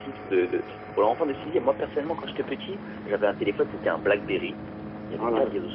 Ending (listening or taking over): listening